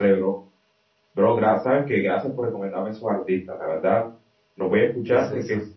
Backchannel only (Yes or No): Yes